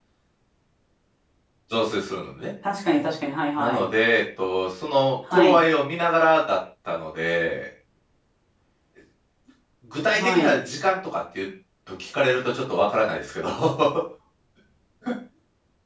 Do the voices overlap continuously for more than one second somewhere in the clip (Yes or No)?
No